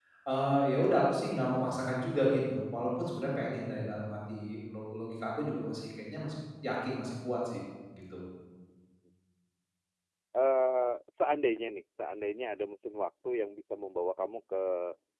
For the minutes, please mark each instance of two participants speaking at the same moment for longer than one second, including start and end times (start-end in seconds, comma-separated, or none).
none